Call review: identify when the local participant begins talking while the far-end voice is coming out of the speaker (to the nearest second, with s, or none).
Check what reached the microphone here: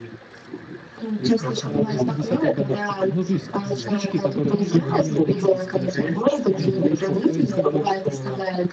1 s